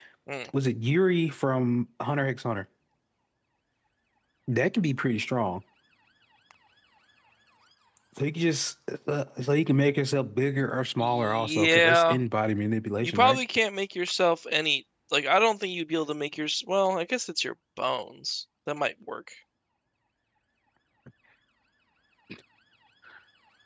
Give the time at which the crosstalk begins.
11.0 s

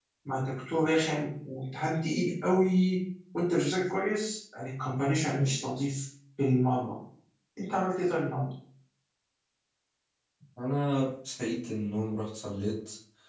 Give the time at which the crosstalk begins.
none

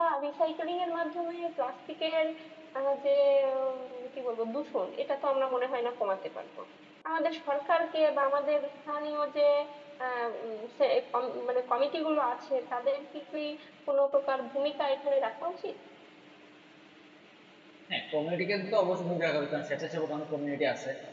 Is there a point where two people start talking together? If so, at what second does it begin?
none

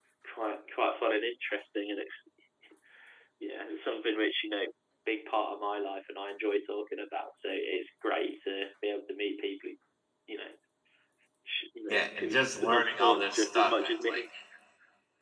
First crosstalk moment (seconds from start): 11.9 s

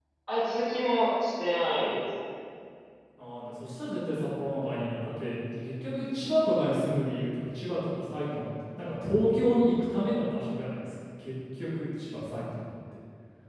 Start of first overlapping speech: none

